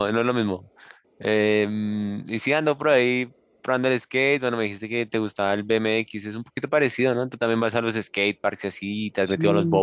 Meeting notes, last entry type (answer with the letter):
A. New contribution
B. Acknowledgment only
A